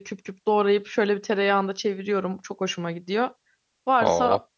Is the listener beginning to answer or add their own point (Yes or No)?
No